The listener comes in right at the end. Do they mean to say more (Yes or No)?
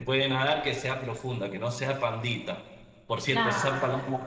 No